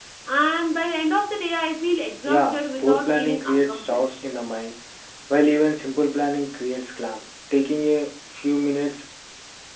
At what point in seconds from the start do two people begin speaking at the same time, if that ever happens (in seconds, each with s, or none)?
2.2 s